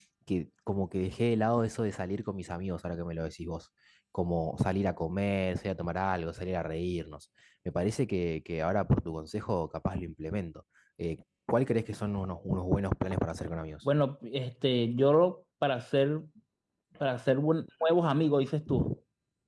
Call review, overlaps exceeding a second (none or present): none